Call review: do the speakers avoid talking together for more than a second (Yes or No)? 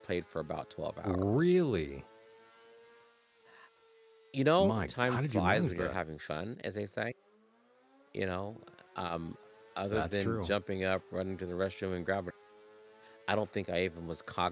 No